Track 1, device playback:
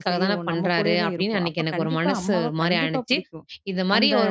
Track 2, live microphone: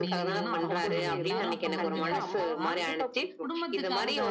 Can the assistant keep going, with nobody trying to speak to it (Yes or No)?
No